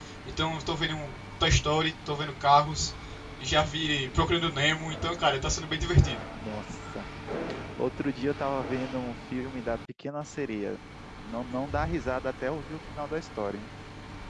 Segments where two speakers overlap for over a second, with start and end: none

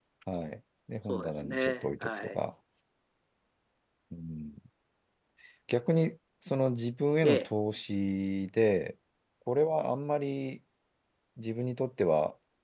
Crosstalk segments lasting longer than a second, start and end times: 1.1-2.4

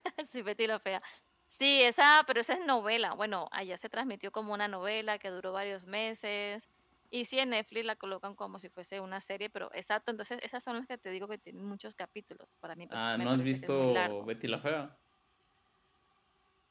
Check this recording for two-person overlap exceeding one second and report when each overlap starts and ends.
12.9-14.3

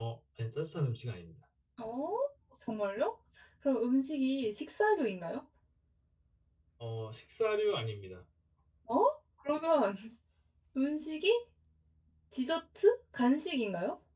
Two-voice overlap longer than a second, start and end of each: none

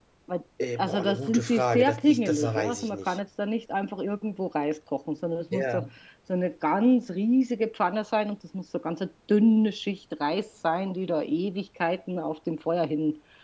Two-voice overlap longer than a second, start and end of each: 0.8-3.2

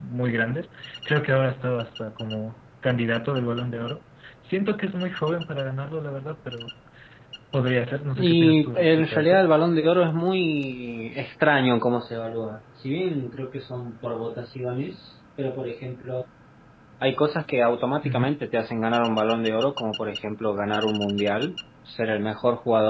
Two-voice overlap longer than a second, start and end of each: 8.2-9.4

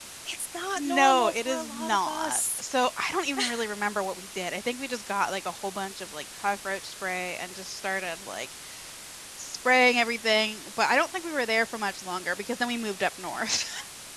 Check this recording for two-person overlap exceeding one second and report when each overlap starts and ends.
0.9-2.6

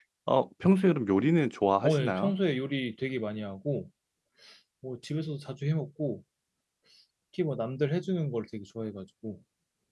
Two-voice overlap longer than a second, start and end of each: none

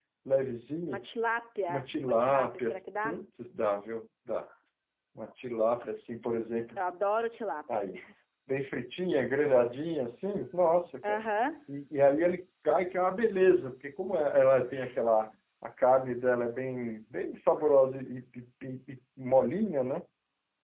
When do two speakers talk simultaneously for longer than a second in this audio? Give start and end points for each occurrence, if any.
1.7-3.2

